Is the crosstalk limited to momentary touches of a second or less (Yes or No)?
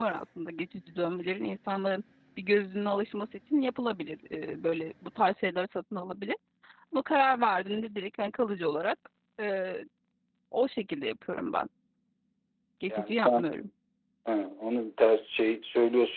Yes